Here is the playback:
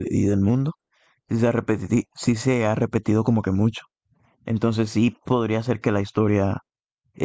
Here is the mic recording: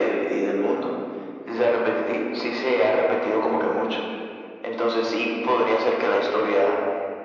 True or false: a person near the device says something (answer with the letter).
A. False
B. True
A